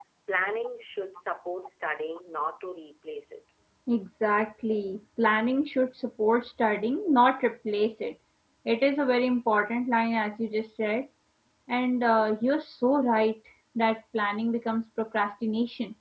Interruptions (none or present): none